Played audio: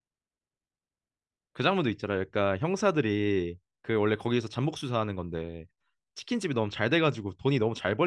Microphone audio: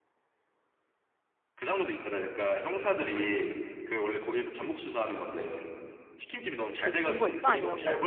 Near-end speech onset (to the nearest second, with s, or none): 7 s